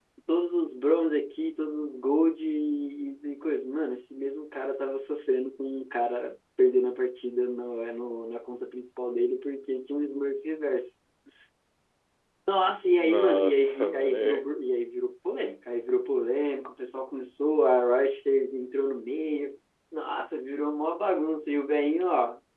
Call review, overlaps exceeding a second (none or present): present